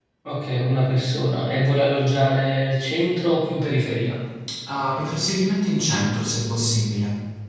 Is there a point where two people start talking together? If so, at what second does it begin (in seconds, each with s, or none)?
none